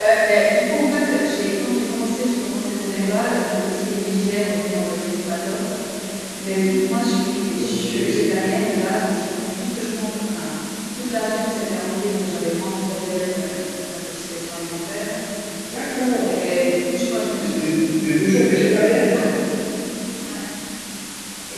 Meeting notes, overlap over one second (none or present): none